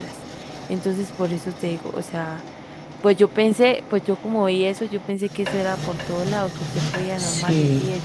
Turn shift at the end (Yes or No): No